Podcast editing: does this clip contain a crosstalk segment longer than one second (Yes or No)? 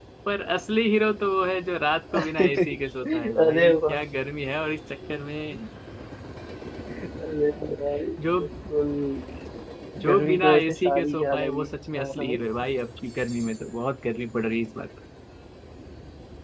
Yes